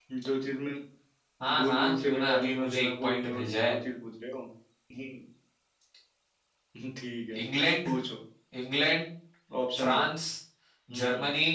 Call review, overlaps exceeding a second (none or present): present